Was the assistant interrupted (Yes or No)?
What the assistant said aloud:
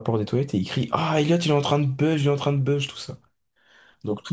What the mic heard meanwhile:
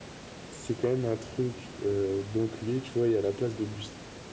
Yes